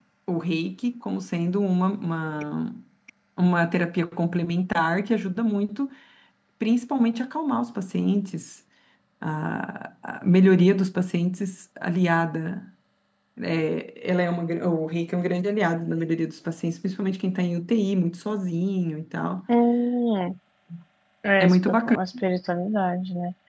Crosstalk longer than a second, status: none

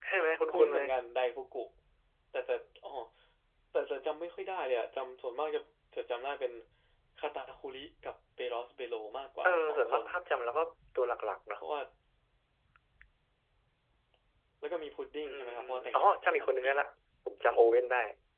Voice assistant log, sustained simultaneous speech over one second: present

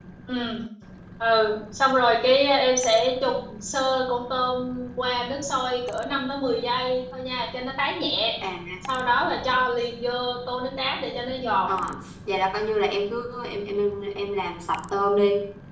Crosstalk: none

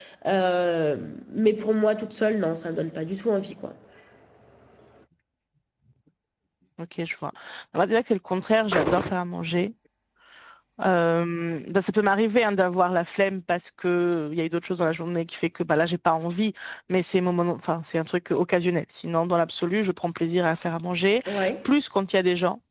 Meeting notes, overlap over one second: none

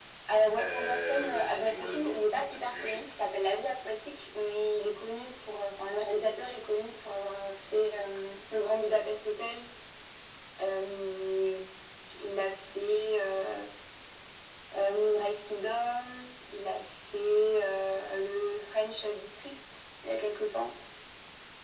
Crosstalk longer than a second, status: present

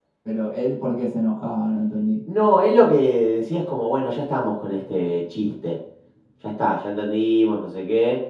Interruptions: none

